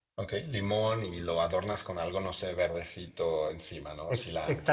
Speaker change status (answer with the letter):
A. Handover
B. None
A